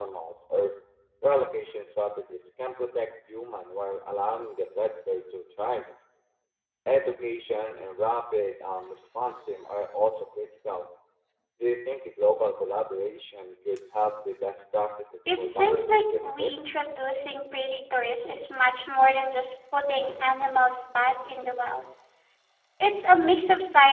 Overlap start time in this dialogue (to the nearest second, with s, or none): 15 s